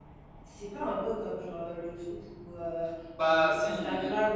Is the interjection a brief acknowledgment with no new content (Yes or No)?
Yes